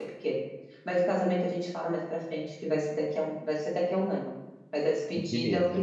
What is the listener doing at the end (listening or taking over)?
listening